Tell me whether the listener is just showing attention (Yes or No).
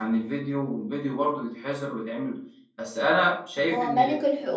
No